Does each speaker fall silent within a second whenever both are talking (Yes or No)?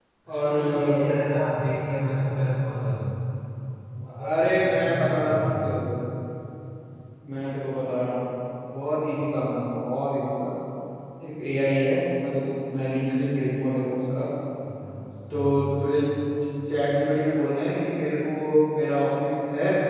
No